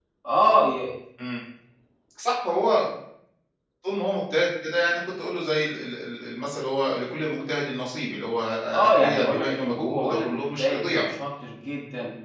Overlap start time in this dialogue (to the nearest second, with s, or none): 9 s